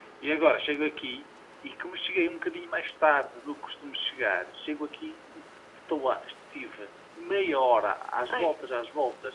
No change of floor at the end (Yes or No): Yes